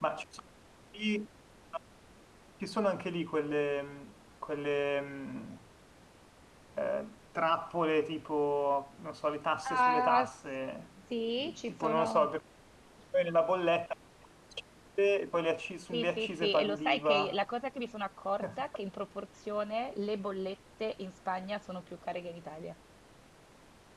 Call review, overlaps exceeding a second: present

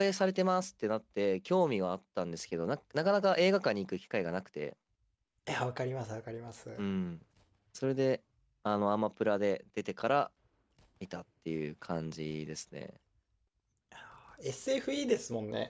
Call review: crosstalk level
none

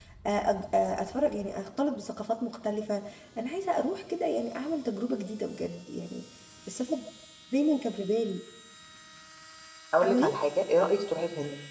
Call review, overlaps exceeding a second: none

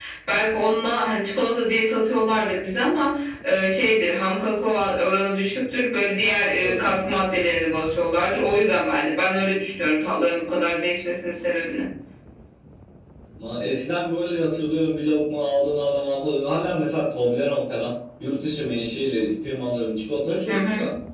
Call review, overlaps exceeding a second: none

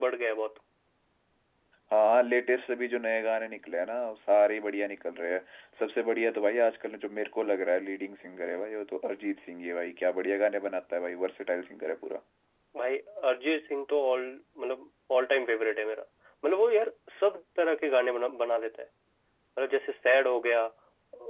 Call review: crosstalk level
none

